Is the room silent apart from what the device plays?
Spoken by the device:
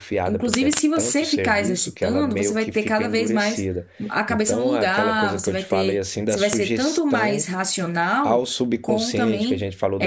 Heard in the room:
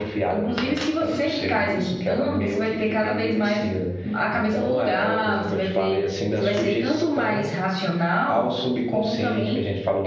Yes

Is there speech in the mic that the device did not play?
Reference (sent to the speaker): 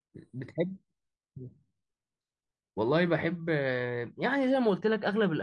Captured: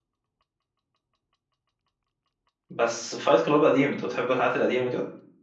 Yes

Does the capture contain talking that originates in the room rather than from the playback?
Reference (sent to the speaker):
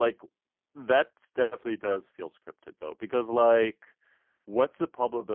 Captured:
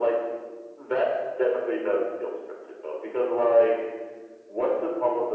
No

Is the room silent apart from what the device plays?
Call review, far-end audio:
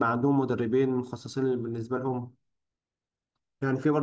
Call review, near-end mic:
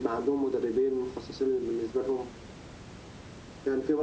Yes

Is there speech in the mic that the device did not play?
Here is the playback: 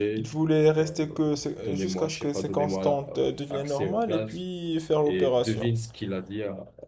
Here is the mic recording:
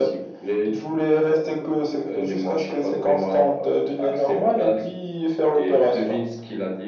No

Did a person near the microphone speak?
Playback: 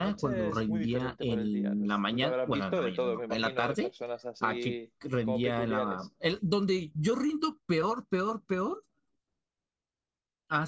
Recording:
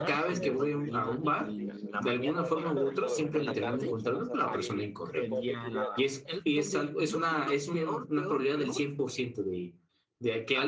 Yes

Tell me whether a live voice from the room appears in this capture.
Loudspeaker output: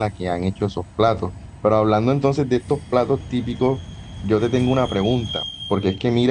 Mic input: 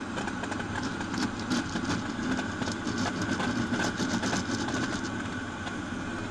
No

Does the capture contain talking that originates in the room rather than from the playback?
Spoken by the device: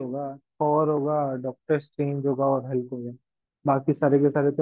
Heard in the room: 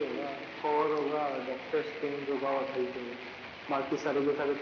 No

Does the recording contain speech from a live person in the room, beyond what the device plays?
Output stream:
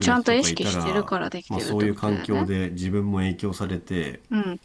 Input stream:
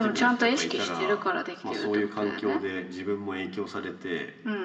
No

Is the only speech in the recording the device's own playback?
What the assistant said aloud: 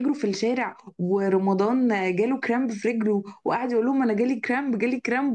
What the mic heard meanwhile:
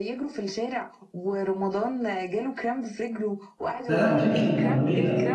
No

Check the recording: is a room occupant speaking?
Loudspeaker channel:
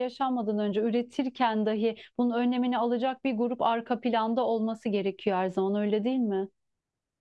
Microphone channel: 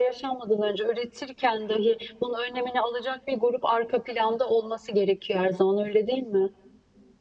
No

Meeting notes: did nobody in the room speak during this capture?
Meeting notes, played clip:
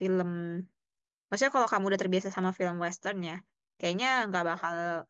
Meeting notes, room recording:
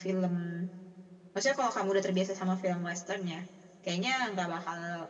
Yes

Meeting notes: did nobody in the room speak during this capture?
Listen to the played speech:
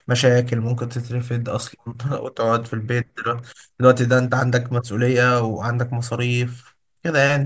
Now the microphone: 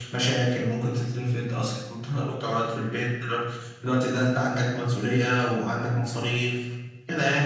Yes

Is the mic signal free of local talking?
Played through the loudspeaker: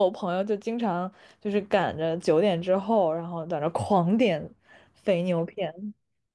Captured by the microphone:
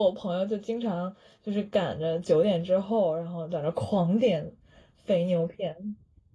Yes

